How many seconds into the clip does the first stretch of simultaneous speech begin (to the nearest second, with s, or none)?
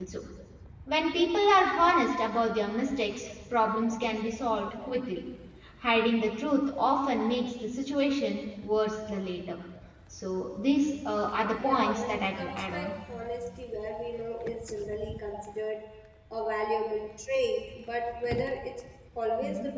12 s